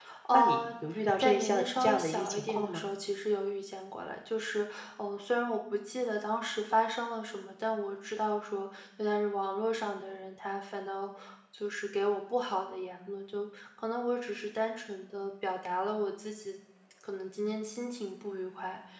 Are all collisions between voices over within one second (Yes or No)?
No